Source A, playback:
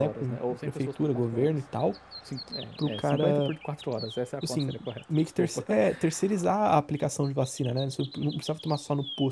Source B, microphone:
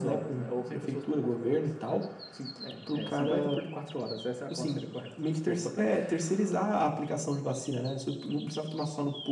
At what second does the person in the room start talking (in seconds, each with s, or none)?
none